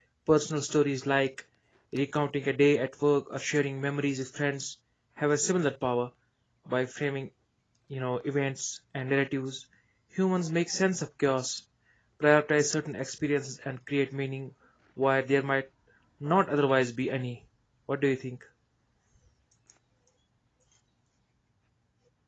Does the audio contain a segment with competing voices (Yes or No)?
No